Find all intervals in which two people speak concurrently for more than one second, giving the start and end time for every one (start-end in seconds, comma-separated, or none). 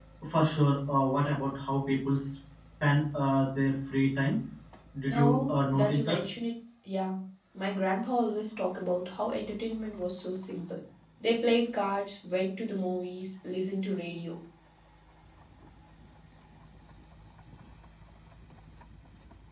5.0-6.2